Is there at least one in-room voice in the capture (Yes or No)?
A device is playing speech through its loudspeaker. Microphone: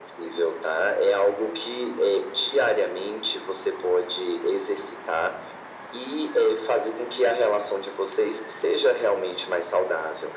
No